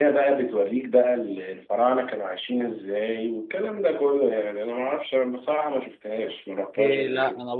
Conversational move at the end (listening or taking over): taking over